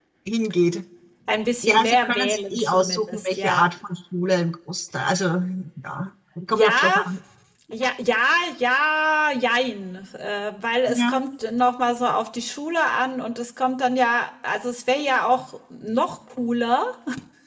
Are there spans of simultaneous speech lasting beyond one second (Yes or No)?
Yes